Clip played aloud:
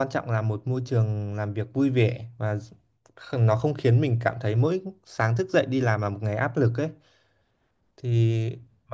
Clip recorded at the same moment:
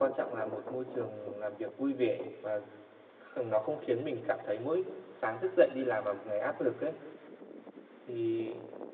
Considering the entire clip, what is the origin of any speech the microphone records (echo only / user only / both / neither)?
echo only